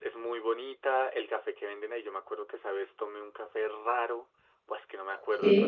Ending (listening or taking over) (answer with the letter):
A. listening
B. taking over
A